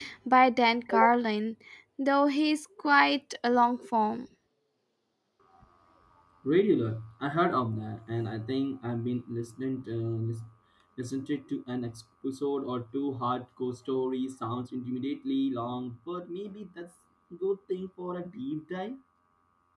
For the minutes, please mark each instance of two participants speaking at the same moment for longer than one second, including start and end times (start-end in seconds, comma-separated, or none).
none